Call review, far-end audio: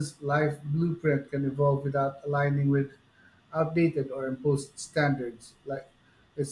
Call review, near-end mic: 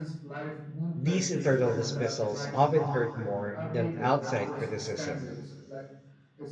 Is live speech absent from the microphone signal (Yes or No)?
No